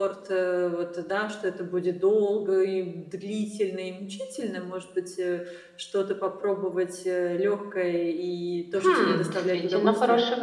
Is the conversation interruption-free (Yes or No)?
No